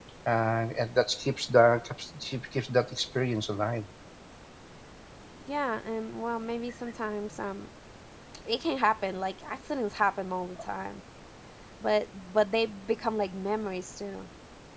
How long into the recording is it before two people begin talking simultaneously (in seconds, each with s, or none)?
none